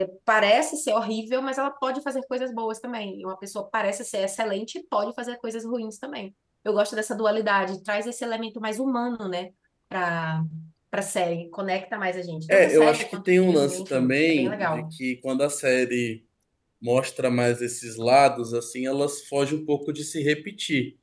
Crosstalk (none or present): present